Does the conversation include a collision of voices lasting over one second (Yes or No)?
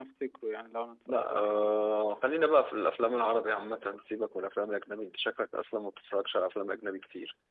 No